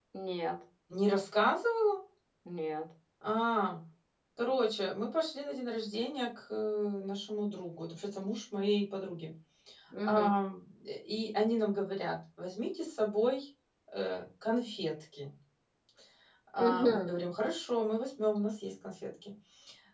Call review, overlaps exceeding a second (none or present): none